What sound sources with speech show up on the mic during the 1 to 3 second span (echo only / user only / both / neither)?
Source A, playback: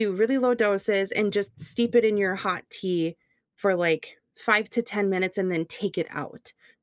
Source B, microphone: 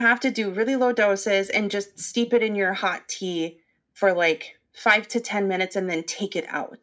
echo only